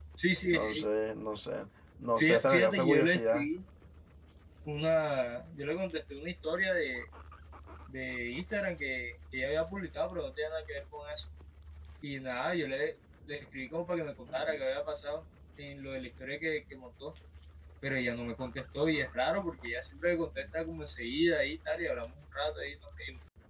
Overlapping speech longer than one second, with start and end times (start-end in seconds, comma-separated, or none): 2.2-3.5